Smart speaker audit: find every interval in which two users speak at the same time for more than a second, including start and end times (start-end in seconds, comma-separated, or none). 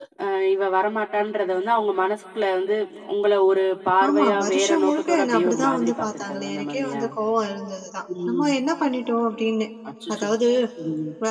4.1-7.0